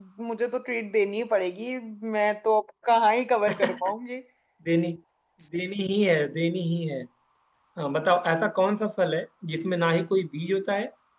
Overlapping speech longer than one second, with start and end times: none

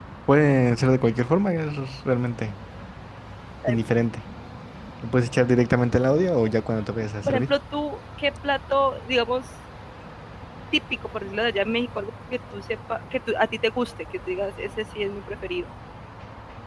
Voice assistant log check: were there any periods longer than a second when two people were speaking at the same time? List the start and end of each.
none

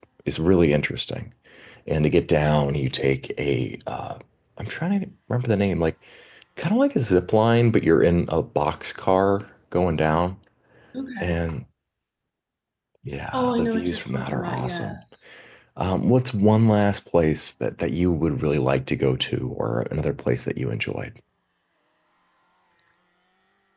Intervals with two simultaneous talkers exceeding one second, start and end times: 13.3-15.0

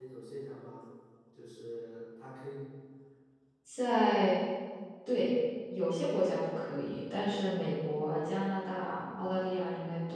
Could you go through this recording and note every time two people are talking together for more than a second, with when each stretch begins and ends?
none

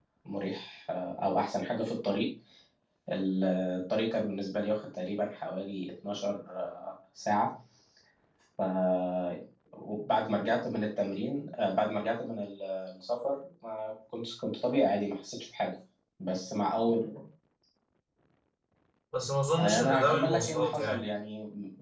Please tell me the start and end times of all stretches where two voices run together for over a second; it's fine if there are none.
19.6-21.1

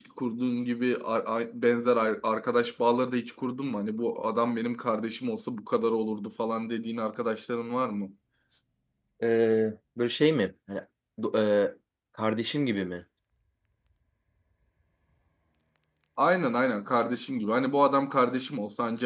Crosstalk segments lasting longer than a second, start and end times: none

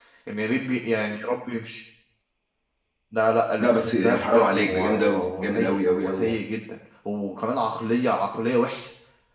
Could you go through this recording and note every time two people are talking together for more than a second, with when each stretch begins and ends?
3.6-6.4

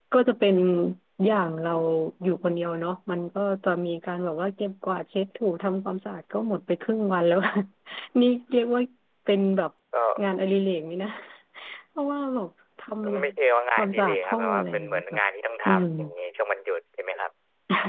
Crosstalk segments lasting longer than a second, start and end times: 13.8-15.2

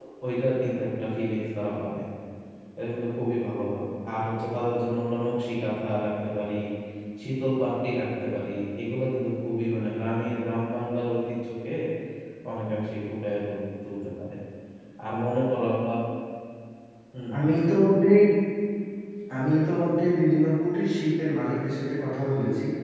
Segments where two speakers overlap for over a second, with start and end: none

